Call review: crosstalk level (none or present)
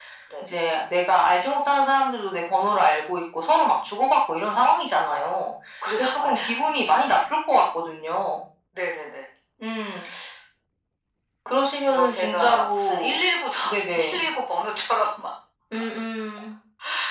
present